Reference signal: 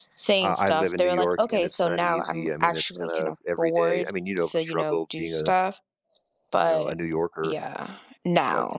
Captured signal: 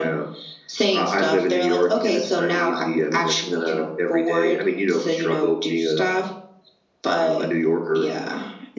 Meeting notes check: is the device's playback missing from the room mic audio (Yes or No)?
No